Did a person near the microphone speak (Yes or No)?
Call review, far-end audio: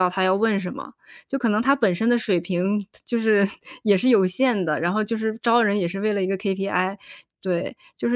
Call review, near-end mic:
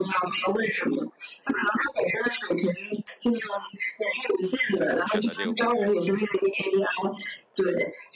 Yes